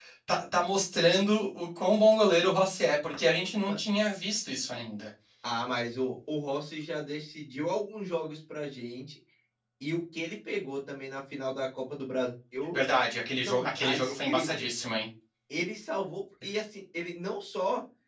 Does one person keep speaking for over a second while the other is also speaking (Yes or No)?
Yes